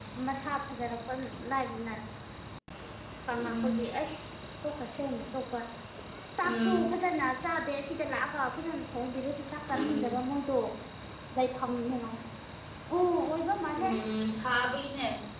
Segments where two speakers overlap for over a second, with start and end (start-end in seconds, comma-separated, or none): none